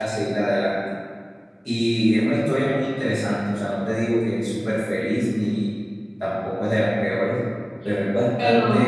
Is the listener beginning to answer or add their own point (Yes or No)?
No